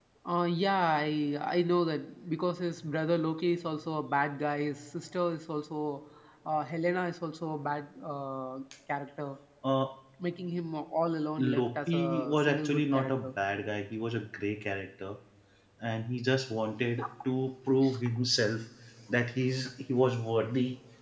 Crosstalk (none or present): present